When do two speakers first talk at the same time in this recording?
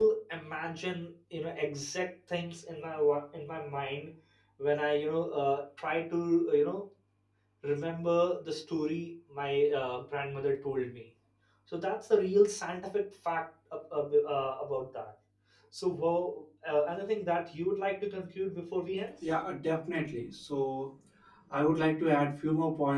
none

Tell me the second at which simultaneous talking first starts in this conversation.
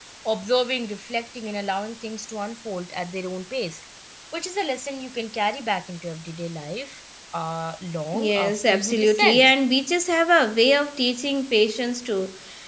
8.1 s

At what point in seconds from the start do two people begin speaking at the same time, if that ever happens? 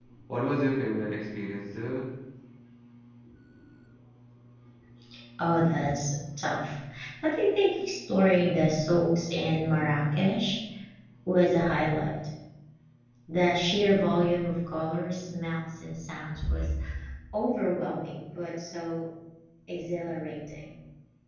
none

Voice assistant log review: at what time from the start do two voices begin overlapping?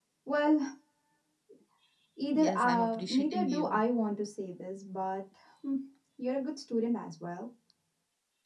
2.3 s

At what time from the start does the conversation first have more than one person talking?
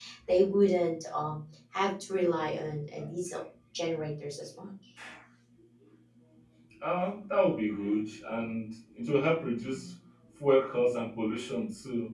none

